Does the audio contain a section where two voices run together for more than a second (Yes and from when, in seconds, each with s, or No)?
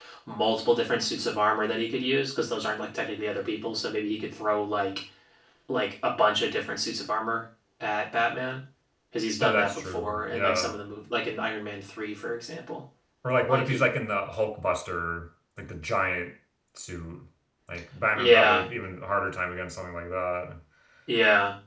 Yes, from 9.4 s